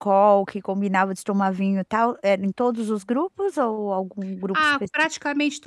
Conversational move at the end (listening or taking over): taking over